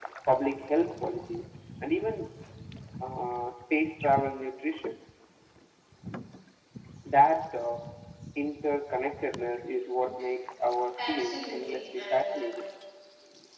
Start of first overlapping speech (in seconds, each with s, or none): 11.1 s